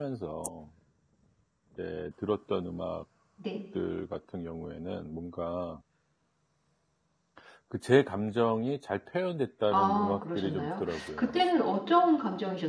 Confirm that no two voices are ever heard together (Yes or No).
No